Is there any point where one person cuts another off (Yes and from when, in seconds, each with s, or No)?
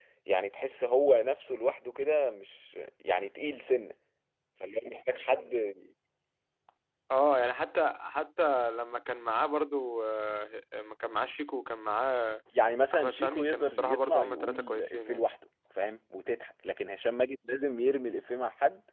Yes, from 12.9 s